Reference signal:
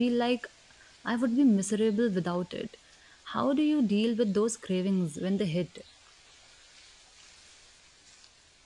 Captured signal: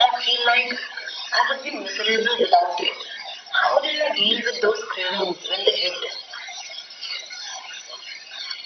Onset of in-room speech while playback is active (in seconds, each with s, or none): none